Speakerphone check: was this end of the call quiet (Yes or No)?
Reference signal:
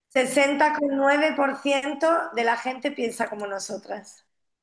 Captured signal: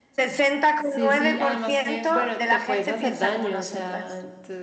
No